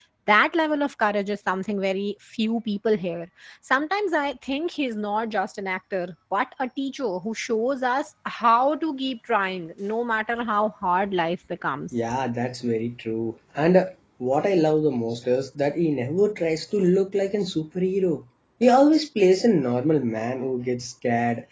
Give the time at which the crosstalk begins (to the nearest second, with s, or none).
none